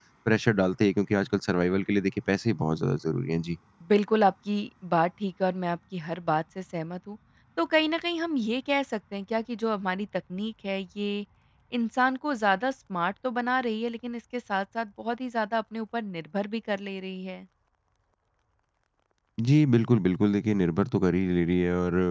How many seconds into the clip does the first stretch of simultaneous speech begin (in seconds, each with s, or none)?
none